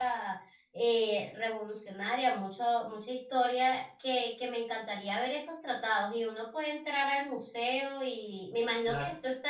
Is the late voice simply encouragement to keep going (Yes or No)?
Yes